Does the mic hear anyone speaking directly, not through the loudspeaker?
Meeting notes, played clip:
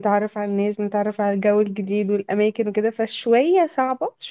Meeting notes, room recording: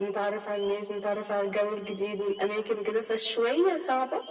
No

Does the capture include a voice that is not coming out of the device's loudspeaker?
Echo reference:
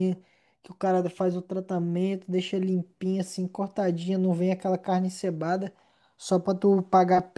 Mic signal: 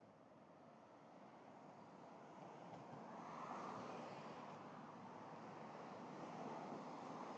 No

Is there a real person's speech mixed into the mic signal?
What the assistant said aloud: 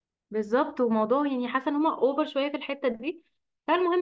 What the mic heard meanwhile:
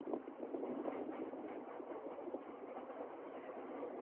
No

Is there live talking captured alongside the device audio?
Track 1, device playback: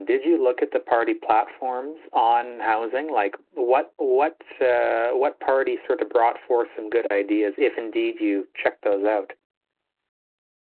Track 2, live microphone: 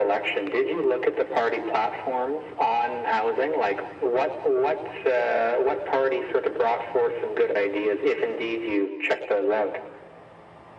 No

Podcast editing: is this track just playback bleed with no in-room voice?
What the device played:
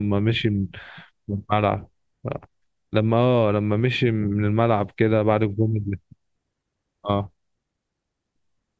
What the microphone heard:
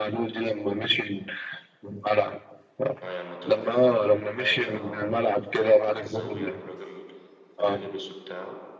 No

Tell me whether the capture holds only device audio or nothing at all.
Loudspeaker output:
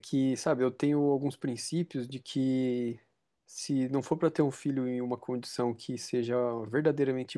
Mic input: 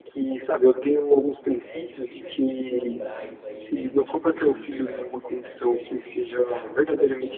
No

